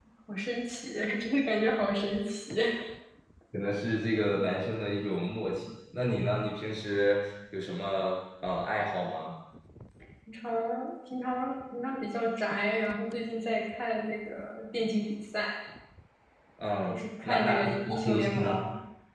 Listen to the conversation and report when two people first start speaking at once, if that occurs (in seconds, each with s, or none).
16.9 s